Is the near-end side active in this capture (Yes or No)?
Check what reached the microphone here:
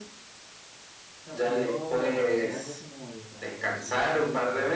Yes